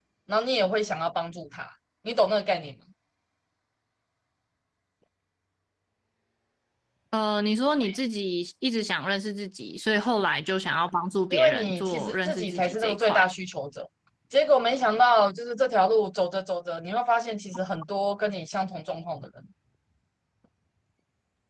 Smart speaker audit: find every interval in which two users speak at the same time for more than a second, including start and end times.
11.3-13.2

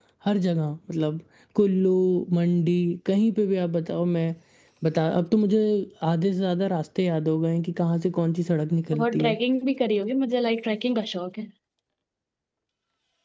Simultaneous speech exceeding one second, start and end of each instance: none

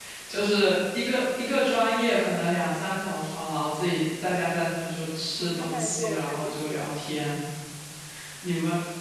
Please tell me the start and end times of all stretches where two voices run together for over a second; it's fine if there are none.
5.4-6.8

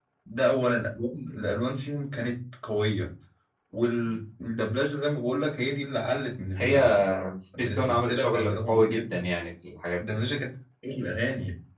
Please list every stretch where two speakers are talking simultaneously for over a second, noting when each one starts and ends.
7.6-9.2

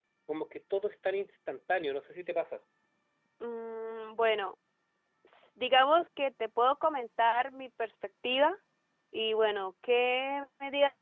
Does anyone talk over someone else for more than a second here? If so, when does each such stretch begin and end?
none

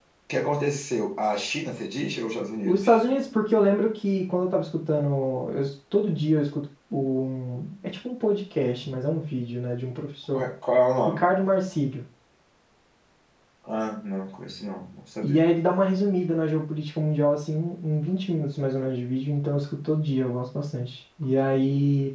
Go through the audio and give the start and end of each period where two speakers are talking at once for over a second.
none

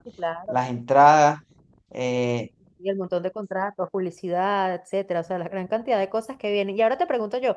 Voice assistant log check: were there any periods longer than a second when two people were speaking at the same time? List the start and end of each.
none

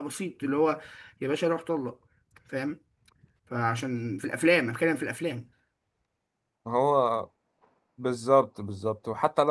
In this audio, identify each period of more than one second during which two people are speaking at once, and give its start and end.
none

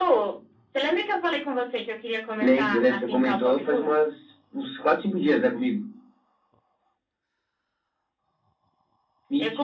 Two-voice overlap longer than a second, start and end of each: 2.4-3.9

